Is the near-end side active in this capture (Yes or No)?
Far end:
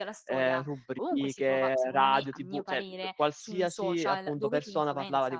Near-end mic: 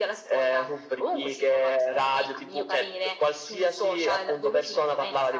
No